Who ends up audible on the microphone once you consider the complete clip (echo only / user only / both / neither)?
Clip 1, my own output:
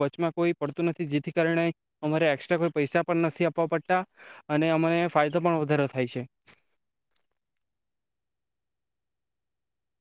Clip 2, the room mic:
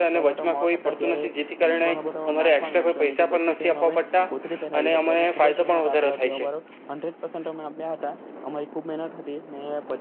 both